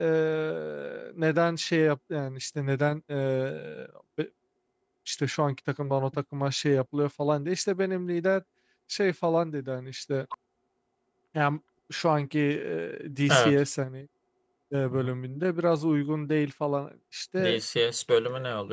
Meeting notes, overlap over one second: none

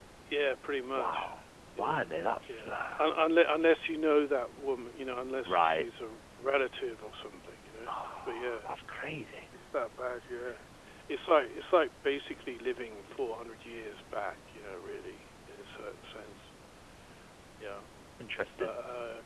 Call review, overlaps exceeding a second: none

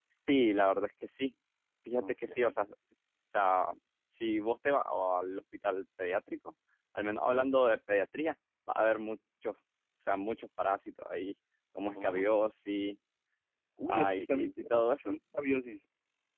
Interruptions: present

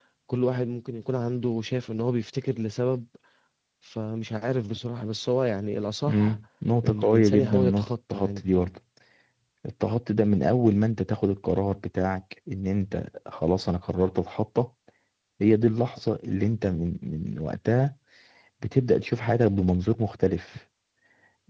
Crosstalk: present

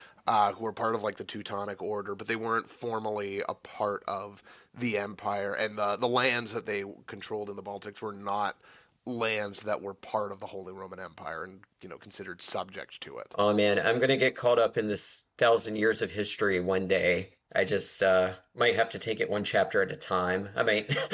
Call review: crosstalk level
none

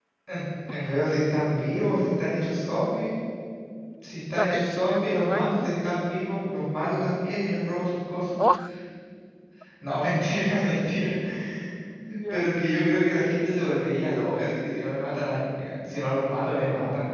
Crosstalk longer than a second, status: present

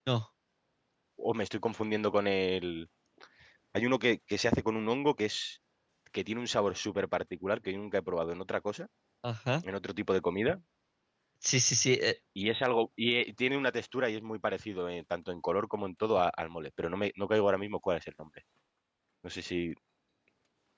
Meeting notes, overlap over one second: none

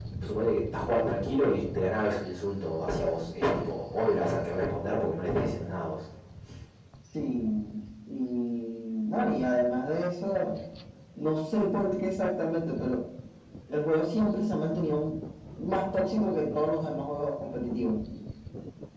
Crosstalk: none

